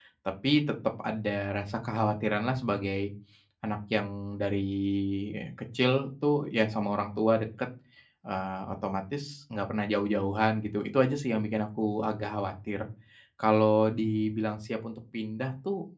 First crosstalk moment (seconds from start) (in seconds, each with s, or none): none